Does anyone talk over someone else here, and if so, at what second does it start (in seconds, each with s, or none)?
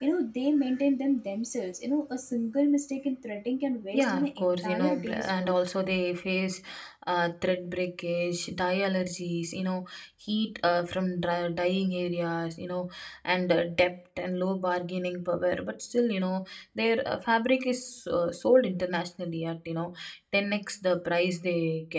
3.9 s